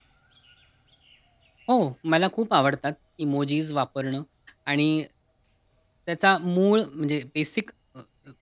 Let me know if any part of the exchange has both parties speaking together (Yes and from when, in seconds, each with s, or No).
No